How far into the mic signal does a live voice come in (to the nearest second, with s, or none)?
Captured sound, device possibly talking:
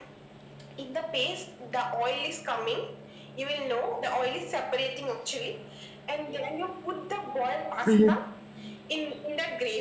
8 s